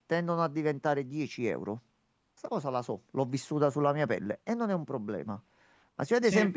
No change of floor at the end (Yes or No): Yes